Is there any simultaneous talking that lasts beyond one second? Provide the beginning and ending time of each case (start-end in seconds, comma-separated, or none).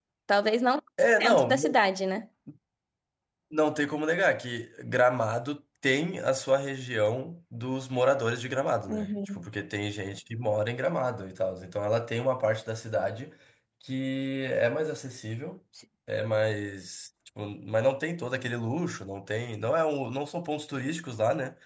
none